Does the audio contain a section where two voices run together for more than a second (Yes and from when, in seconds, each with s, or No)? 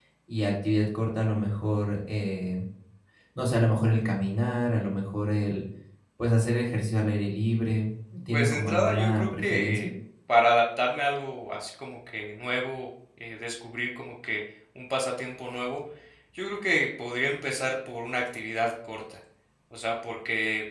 Yes, from 8.3 s